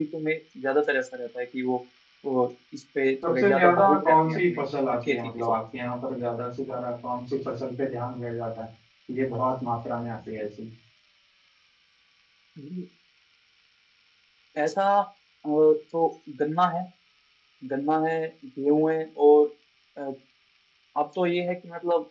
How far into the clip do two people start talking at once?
3.2 s

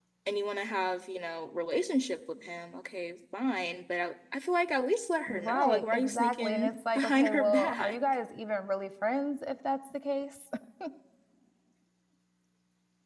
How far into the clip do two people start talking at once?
5.3 s

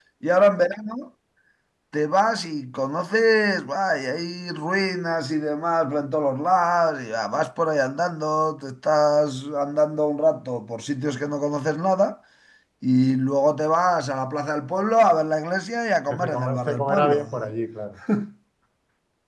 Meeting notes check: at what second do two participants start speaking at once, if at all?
16.1 s

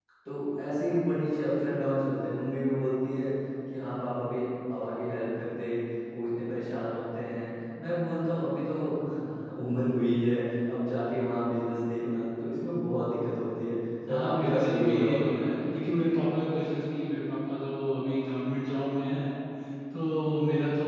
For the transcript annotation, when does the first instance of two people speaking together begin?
14.1 s

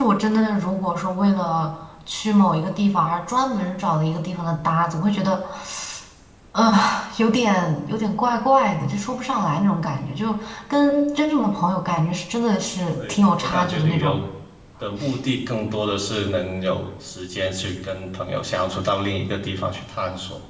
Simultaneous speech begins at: 12.9 s

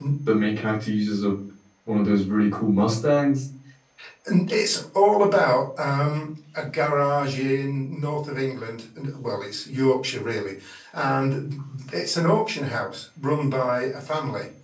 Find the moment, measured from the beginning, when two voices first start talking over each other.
none

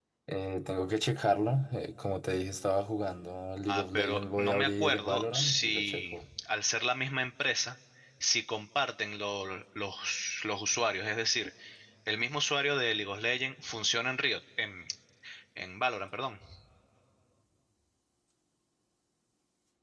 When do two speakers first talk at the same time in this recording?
3.7 s

